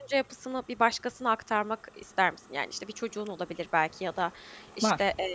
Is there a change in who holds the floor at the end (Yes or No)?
No